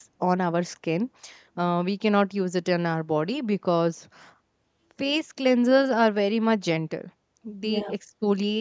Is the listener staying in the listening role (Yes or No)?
Yes